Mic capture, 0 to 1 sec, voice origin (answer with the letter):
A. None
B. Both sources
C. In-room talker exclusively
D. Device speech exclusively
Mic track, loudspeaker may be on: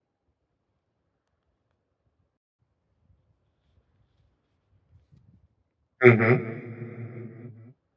A